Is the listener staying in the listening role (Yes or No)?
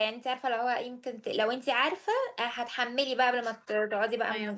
No